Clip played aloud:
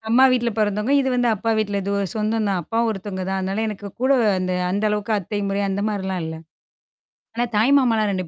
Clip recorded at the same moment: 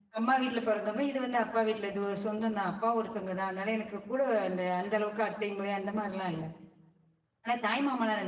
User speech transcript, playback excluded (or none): none